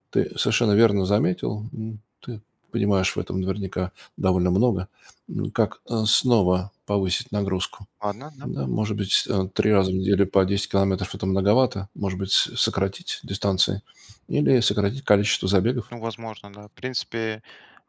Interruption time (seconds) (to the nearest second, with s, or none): none